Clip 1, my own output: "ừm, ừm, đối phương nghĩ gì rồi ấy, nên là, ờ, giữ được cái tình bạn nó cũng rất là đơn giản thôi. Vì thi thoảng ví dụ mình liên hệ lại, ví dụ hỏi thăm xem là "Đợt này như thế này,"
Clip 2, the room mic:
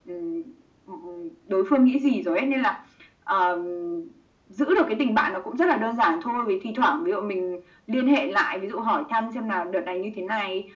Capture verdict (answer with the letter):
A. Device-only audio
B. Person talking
A